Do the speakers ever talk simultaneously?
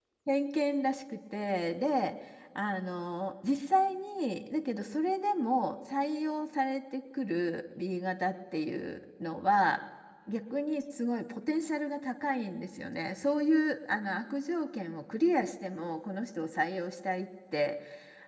No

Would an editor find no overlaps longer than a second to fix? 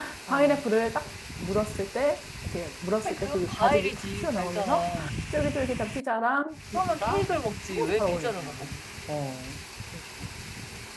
No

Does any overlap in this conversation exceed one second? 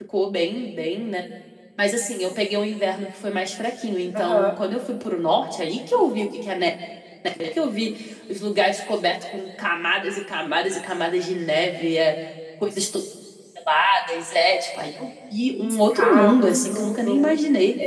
Yes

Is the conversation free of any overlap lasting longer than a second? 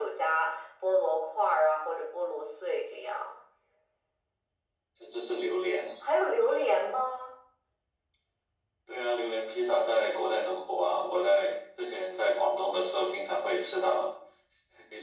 Yes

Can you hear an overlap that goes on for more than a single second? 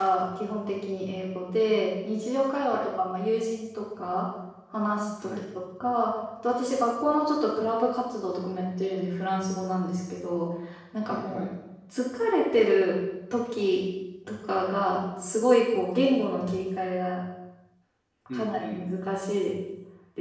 No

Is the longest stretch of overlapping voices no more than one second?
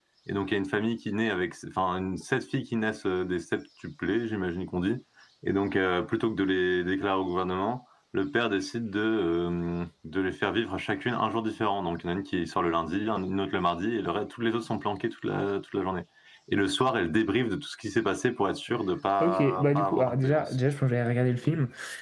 No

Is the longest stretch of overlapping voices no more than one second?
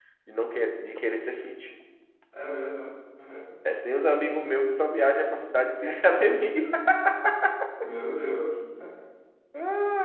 Yes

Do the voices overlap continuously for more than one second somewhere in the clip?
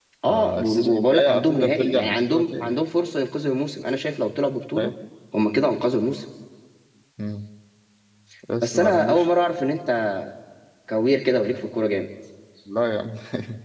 Yes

